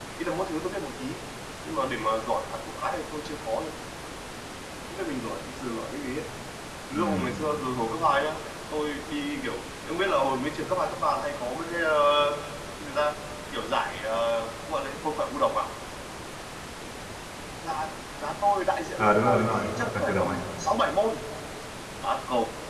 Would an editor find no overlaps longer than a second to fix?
No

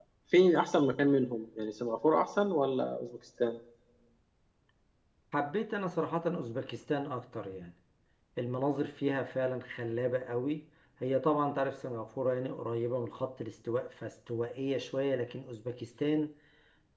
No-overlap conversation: Yes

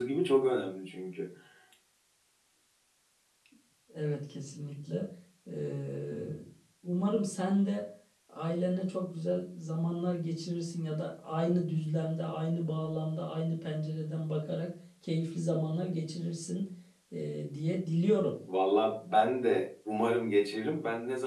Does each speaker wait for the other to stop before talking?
Yes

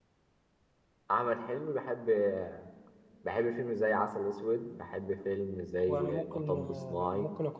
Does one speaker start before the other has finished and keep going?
Yes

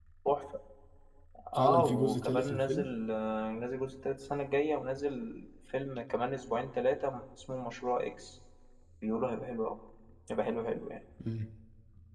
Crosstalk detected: Yes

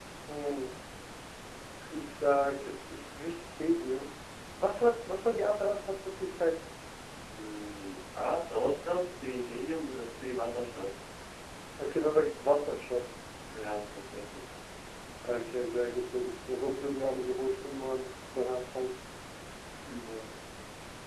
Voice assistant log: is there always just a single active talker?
Yes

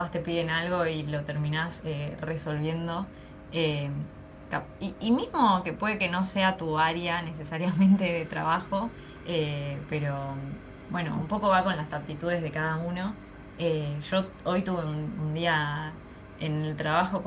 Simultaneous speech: No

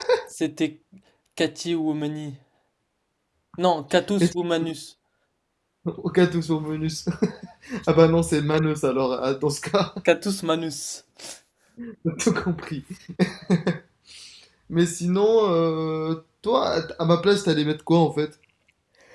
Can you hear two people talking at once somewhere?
No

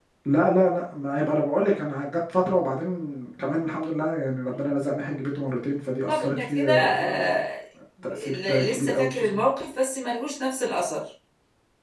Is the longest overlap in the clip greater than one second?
Yes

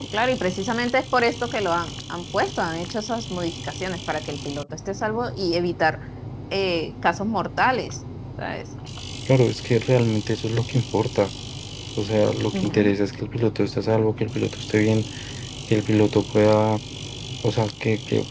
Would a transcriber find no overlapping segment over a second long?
Yes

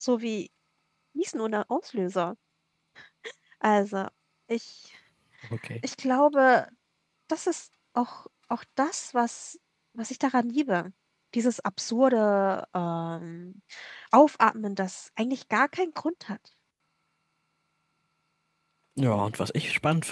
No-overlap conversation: Yes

